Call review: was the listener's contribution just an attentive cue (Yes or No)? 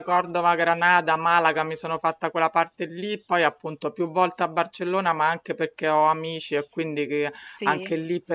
Yes